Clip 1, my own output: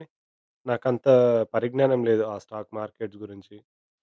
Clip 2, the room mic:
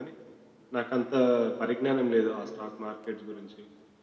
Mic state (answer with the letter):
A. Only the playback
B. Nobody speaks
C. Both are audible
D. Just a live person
A